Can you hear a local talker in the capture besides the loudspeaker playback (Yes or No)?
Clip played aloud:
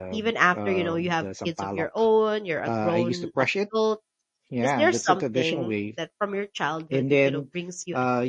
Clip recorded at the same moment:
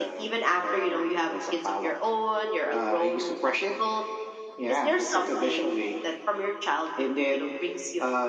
No